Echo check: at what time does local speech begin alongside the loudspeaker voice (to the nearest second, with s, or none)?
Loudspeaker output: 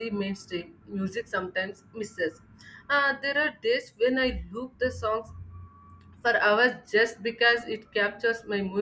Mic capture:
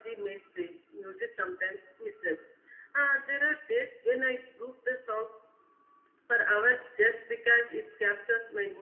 none